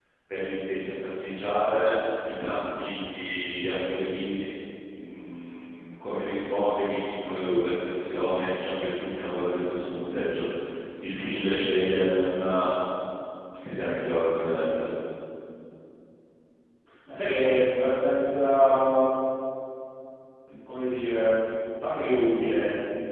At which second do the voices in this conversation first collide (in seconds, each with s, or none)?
none